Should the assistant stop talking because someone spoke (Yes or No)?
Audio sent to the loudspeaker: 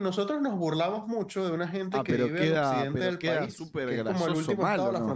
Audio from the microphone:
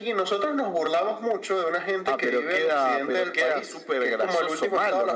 No